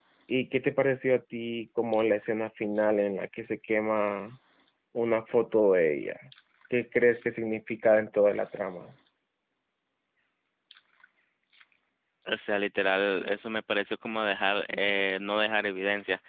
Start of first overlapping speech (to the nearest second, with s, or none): none